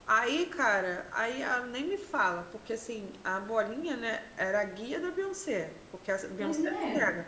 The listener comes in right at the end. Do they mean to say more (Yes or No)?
No